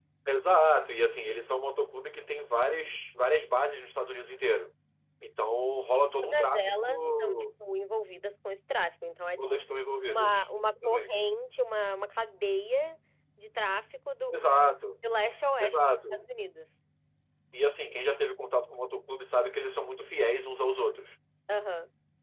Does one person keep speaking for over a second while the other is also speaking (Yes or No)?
Yes